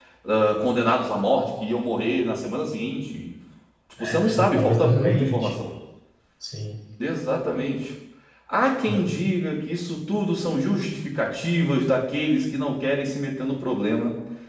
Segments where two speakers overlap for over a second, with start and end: 4.0-5.6

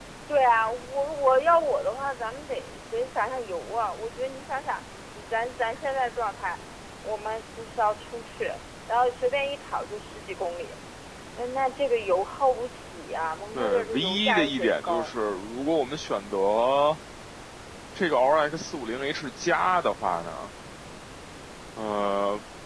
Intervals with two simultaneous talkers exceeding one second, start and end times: 13.6-15.1

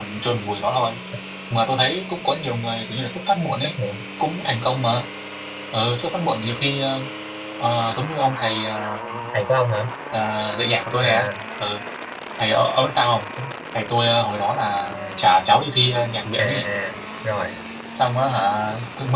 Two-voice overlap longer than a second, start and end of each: none

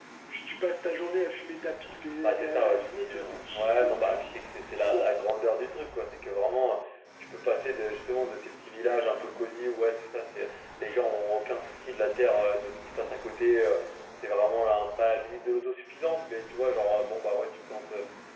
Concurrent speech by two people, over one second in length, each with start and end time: 2.2-4.1

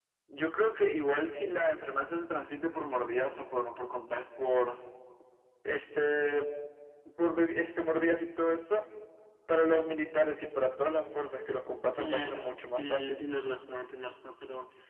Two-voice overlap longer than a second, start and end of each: 11.9-13.2

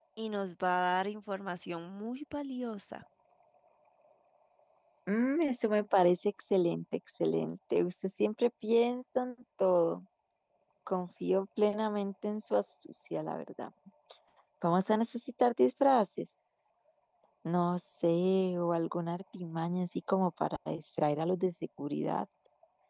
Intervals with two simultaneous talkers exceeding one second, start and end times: none

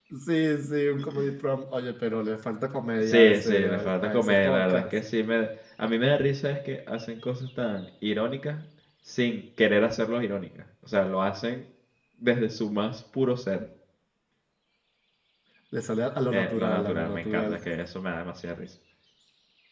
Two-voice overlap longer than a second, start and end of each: 3.0-4.8, 16.3-17.6

